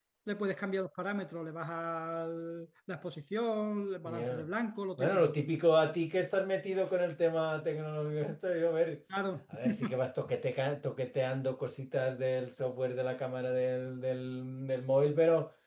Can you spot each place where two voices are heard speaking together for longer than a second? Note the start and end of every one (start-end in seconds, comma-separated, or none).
none